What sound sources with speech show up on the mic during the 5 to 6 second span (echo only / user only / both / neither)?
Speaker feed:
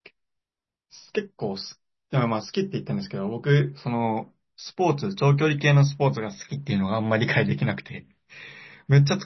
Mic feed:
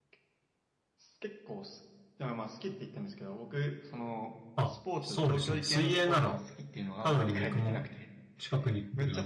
both